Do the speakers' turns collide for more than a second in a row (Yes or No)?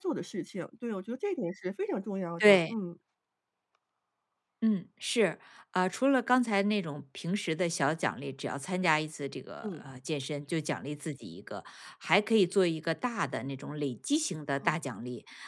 No